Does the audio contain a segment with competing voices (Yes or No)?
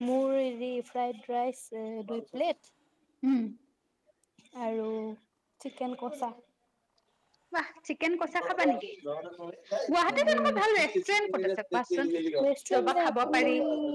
Yes